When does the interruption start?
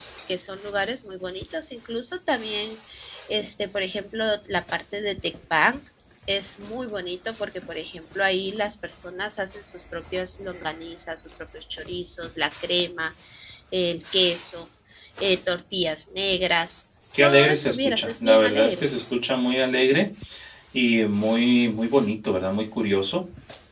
17.1 s

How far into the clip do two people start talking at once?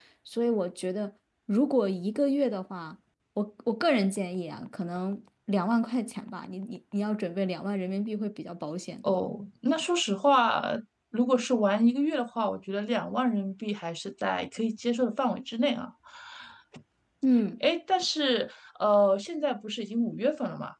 none

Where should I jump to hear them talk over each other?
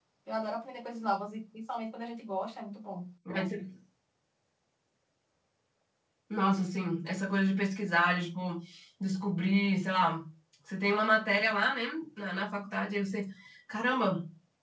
none

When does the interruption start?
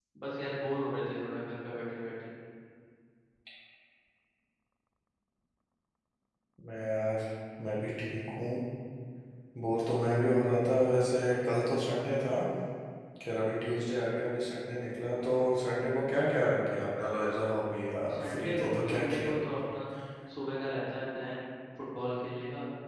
18.1 s

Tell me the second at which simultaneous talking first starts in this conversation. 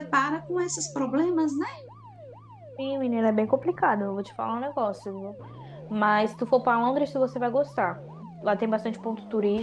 none

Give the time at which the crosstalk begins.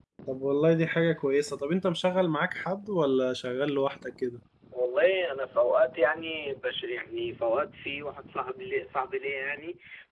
none

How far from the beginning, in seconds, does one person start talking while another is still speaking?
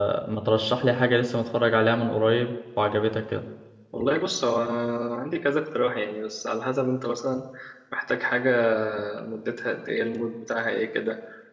none

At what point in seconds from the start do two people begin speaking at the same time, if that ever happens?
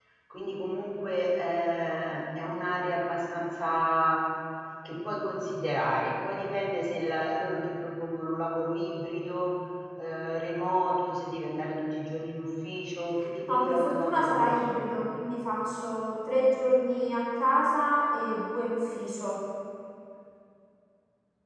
13.5 s

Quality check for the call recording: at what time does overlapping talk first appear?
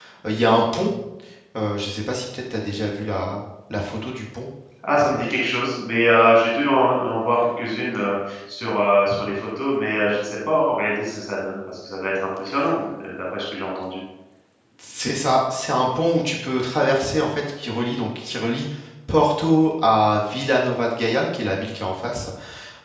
none

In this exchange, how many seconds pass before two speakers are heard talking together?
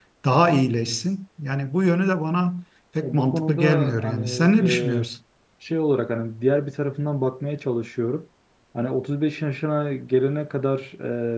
3.0 s

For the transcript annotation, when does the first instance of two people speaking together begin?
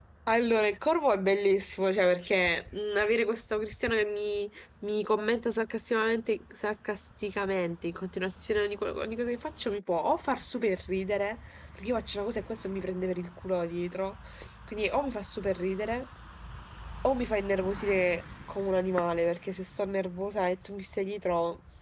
none

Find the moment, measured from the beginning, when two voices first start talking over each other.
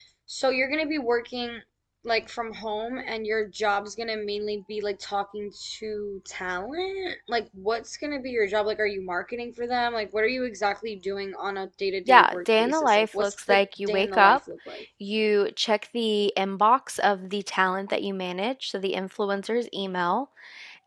12.1 s

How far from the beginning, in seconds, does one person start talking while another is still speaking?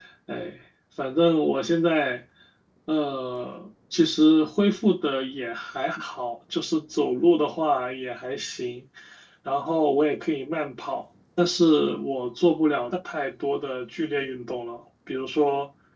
none

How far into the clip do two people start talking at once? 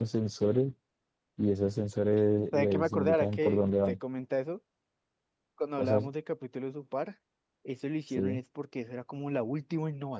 2.5 s

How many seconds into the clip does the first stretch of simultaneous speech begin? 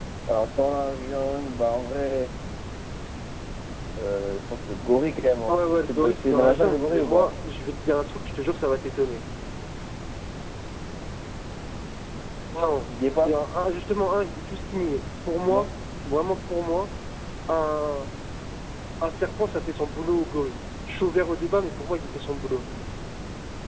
5.5 s

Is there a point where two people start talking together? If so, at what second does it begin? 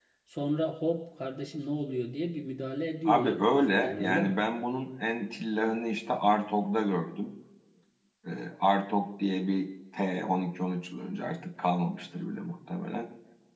3.0 s

